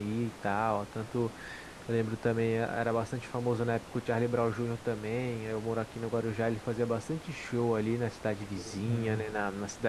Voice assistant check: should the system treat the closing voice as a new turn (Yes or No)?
No